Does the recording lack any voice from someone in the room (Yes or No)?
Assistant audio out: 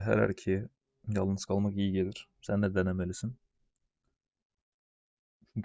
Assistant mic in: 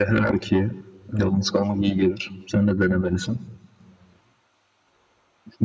Yes